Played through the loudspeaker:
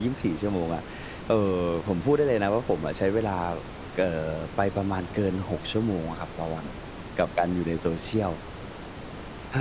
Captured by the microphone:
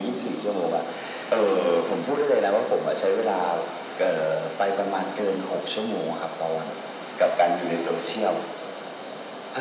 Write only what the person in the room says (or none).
none